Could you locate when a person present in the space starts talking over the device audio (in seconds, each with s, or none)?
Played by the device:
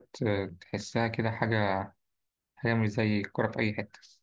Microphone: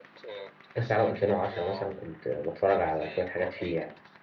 0.7 s